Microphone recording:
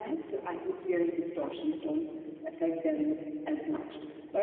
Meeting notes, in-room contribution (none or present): none